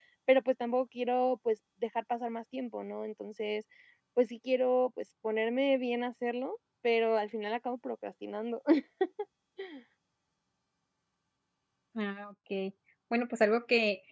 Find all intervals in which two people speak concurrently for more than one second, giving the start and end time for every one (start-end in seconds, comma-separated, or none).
none